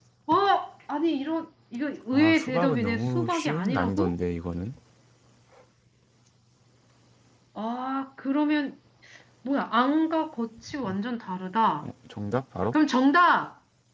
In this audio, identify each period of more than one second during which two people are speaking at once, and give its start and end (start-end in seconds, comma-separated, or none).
2.1-4.2